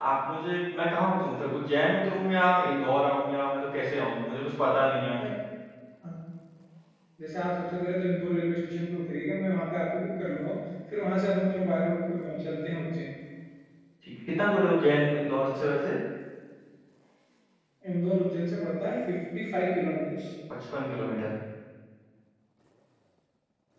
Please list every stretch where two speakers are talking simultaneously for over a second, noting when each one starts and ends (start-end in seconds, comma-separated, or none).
none